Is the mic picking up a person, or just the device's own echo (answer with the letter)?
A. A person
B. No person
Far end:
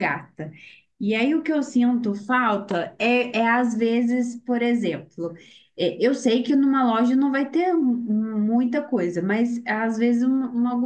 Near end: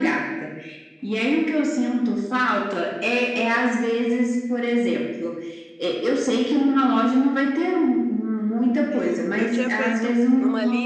A